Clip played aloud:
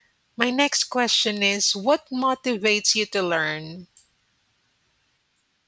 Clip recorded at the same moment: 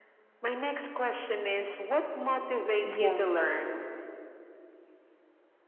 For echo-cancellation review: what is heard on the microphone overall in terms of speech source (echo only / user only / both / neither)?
both